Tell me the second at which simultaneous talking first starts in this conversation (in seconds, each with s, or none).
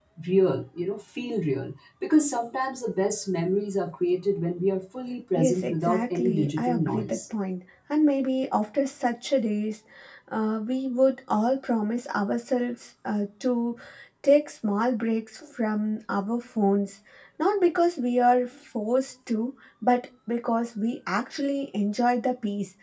5.3 s